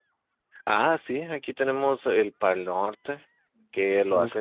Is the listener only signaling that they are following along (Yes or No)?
Yes